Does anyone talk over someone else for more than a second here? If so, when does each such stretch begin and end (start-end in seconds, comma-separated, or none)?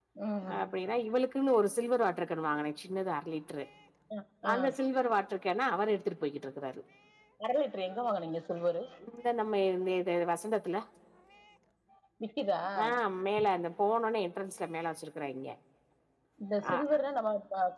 none